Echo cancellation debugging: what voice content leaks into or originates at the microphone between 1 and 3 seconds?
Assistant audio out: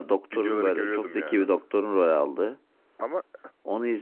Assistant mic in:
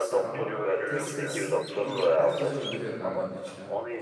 both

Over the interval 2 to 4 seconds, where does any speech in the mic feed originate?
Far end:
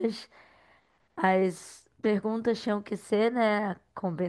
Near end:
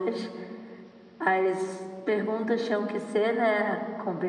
echo only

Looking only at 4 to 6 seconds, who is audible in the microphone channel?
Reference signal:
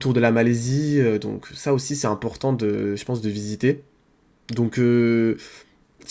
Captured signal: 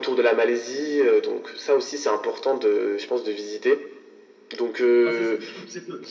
both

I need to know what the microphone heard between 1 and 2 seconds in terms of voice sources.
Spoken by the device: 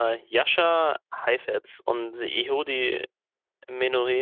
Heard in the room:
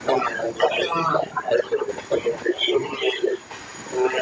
echo only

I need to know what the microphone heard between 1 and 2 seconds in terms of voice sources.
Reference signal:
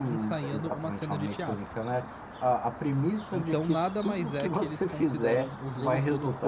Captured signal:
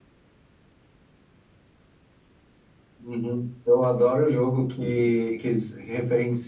neither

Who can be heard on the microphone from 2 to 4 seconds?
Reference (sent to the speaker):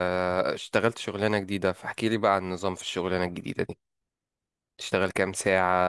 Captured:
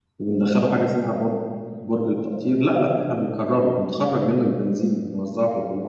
user only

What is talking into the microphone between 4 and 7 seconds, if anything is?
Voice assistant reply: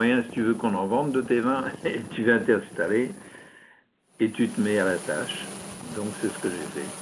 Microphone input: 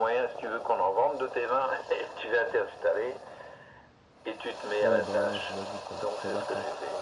both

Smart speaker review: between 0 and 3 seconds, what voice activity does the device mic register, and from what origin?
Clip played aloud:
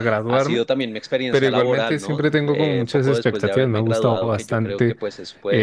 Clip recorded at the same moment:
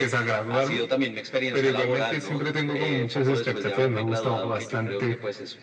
echo only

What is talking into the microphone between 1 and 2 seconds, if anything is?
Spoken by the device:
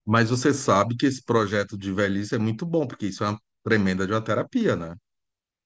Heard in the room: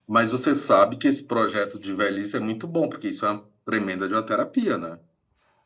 echo only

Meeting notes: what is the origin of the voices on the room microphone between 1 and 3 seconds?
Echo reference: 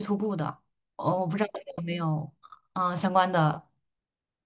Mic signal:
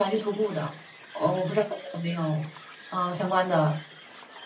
echo only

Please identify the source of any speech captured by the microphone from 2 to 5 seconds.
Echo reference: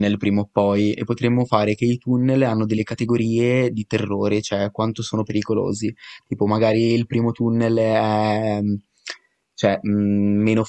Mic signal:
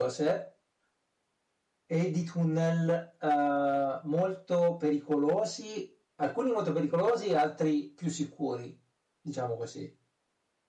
user only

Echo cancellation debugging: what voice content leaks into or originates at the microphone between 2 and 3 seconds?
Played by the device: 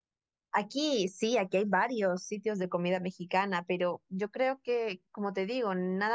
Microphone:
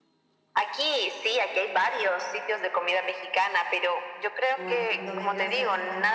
echo only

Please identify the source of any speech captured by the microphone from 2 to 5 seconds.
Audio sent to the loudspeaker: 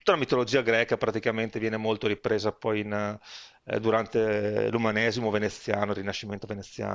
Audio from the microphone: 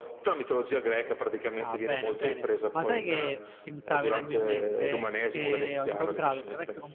both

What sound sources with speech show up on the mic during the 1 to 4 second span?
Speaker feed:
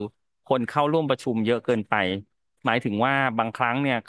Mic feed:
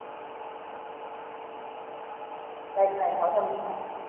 user only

